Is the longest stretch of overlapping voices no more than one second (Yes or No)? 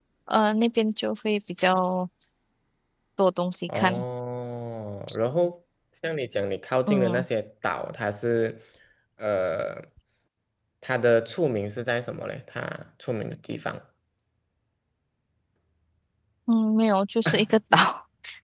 Yes